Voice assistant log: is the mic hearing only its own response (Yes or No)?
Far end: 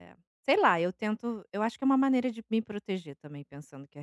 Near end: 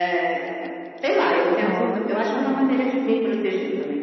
No